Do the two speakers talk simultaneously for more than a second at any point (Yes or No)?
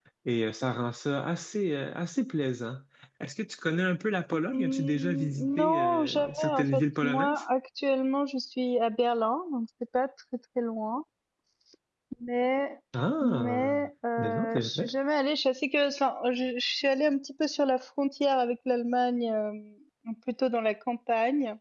Yes